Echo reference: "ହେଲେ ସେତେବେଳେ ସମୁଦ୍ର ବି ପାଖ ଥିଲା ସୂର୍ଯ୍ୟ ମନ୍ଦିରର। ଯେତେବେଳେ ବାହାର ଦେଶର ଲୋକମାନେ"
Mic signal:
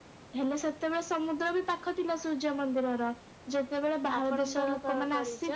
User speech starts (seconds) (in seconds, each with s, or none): 4.2 s